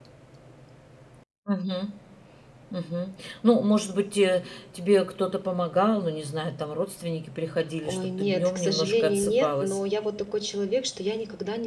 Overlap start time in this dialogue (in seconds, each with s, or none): 7.8 s